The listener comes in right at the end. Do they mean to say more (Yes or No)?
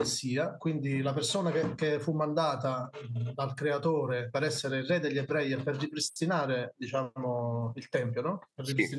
No